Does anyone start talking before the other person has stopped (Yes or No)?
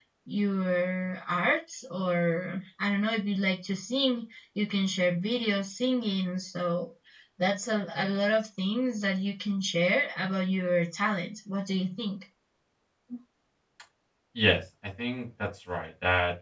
No